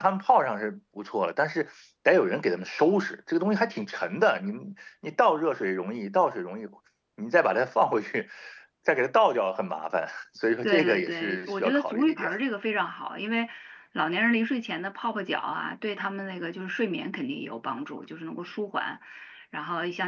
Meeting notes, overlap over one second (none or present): present